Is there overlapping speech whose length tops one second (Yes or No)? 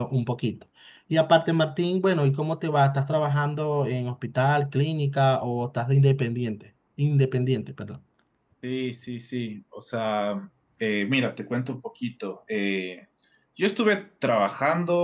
No